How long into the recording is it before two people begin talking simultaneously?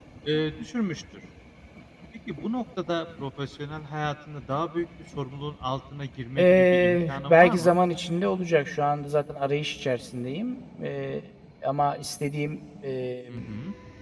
6 s

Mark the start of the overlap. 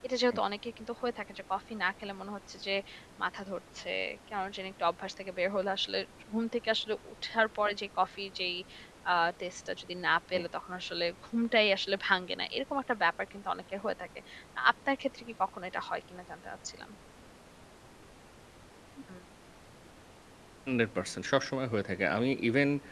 none

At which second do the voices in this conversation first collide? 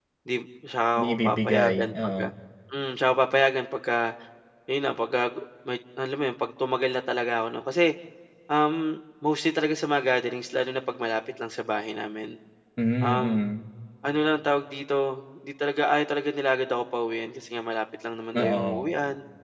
1 s

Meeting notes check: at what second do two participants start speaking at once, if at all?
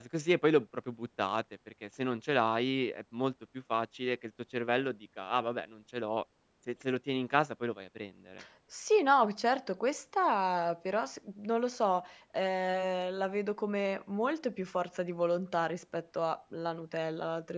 none

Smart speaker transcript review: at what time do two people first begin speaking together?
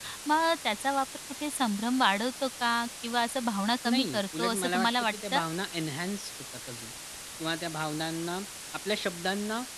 4 s

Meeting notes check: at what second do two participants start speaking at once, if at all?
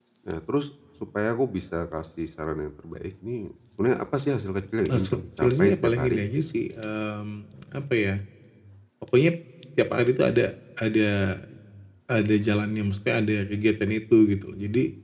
5 s

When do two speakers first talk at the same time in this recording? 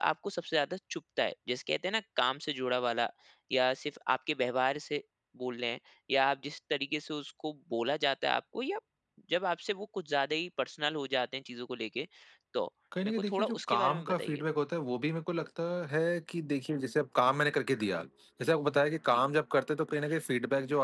13 s

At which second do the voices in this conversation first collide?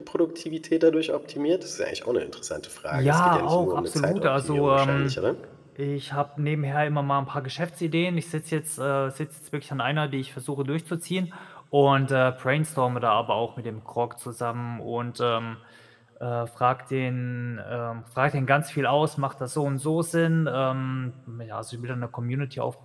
3 s

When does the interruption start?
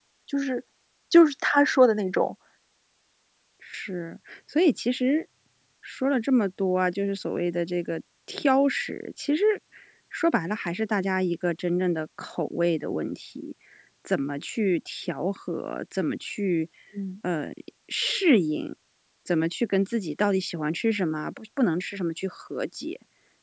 none

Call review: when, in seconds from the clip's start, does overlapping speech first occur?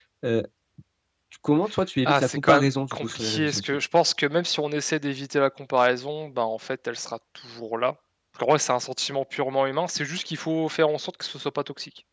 2 s

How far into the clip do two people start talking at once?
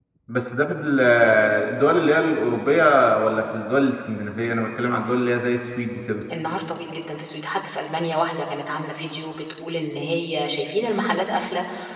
none

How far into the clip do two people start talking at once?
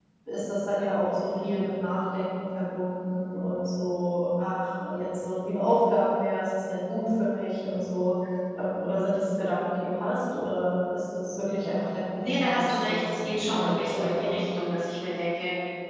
12 s

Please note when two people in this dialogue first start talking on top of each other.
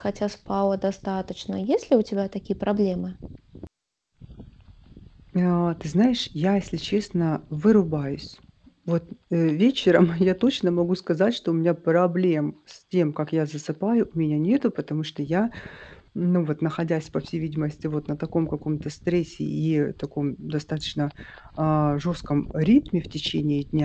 none

